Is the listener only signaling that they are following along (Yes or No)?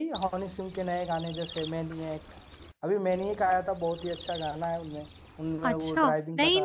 No